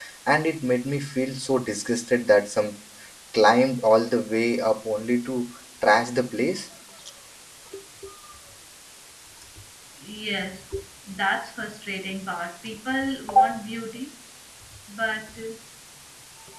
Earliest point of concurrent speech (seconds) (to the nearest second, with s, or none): none